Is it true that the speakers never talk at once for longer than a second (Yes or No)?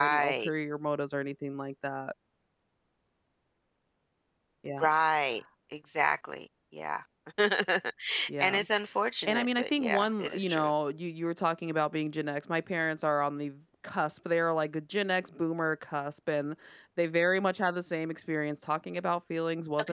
No